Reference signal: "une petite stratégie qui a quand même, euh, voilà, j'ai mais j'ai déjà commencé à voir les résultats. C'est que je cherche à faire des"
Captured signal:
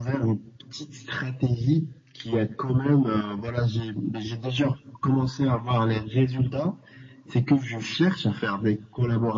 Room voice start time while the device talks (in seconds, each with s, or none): none